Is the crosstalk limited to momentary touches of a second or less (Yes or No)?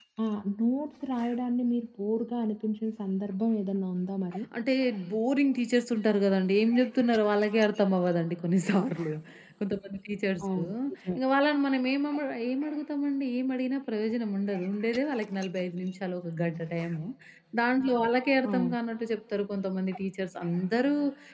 Yes